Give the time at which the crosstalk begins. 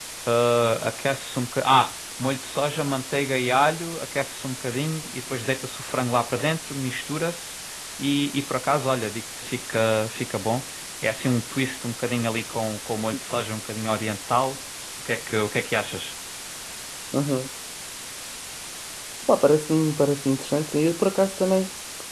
none

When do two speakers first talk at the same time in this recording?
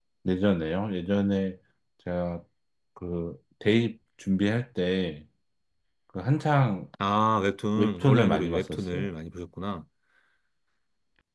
7.8 s

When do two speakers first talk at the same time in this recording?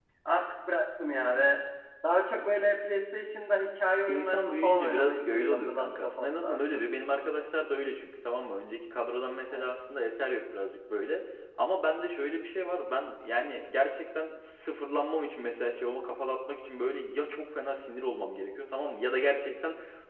4.1 s

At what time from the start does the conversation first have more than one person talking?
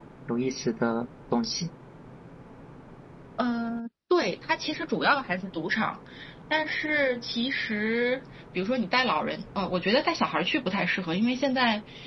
none

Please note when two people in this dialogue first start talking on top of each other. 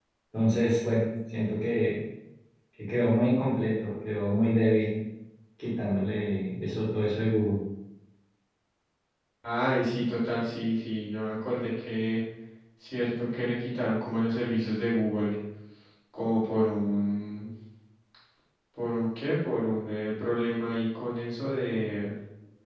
none

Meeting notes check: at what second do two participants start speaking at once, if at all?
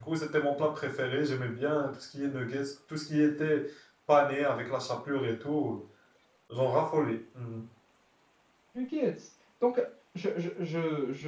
none

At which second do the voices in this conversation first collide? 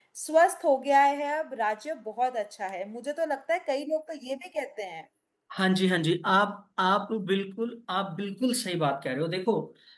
none

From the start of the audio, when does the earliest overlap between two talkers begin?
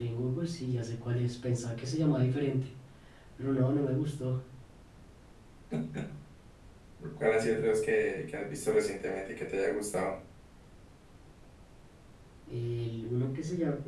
none

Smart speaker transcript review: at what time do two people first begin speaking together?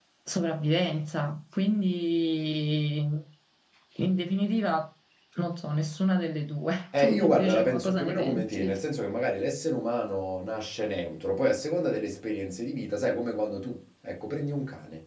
6.9 s

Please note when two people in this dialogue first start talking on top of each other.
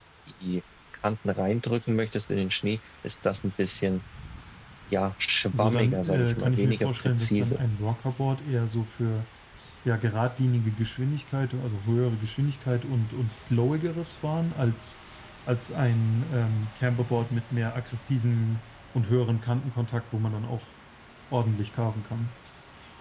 5.5 s

